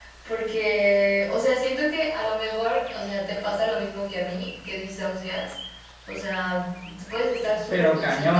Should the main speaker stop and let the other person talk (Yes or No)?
No